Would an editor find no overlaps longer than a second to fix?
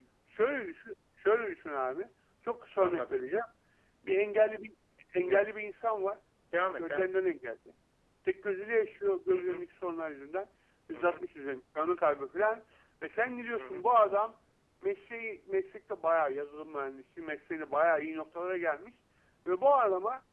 Yes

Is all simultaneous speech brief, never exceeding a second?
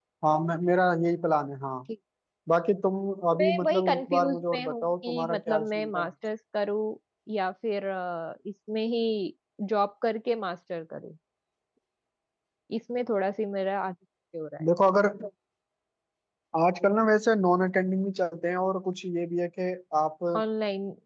No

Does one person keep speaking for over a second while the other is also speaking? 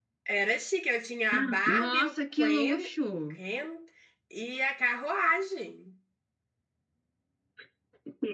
Yes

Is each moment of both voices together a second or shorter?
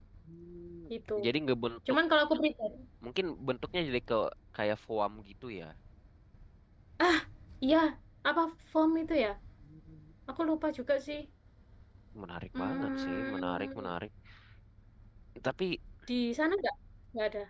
No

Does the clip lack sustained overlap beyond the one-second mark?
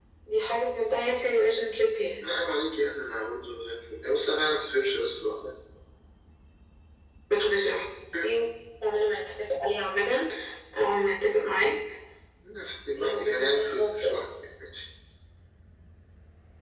No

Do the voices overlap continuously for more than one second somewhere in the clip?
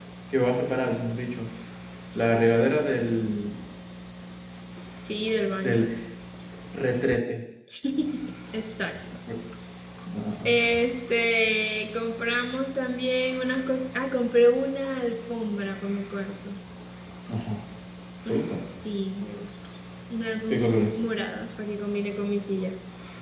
No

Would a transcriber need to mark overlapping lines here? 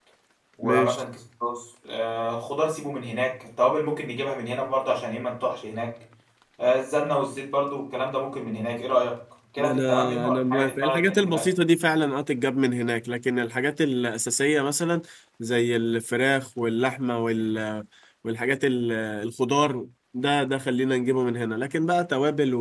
Yes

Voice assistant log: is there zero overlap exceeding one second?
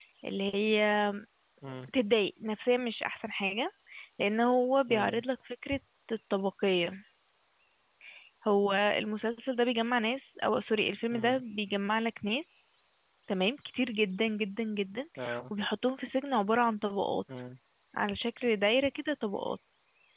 Yes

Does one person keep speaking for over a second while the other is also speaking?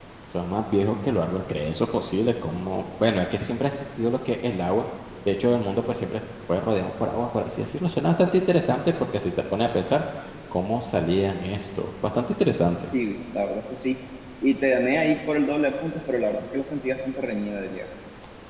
No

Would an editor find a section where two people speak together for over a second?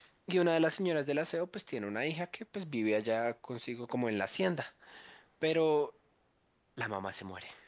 No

